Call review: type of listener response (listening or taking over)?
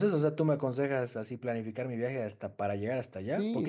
listening